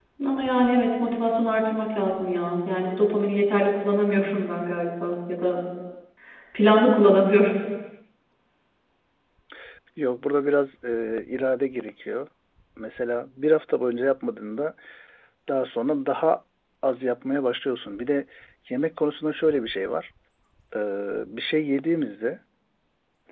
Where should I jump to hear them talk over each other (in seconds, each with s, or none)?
none